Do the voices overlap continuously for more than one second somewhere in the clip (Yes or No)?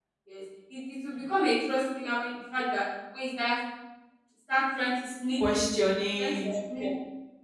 No